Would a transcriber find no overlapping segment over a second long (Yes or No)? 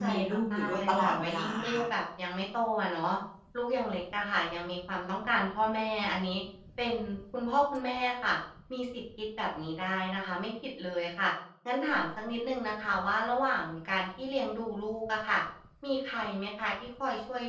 No